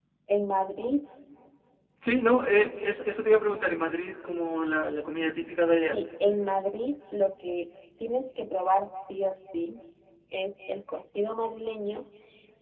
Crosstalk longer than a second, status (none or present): none